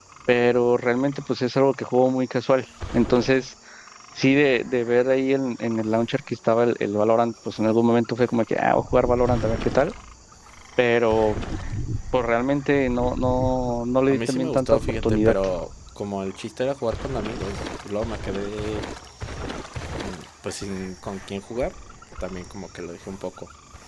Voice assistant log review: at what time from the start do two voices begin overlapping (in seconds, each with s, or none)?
14.1 s